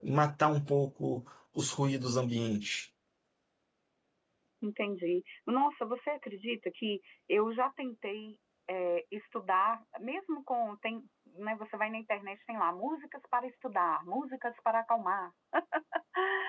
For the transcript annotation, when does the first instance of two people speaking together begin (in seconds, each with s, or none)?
none